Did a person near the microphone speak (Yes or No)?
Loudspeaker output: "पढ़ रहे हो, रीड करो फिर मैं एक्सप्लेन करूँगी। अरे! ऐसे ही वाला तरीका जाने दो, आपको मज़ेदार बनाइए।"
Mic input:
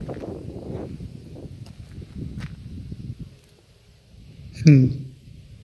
Yes